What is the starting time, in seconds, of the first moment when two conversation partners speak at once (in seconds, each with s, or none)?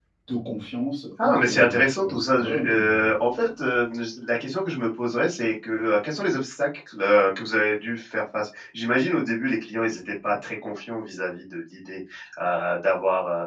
1.2 s